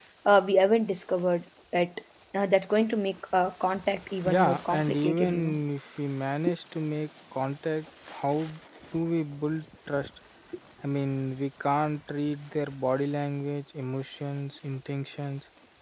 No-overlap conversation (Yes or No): No